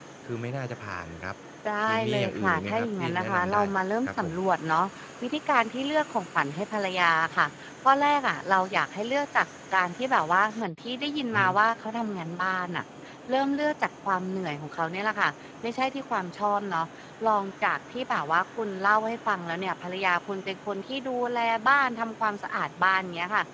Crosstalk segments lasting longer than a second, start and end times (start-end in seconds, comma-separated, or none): 1.9-3.6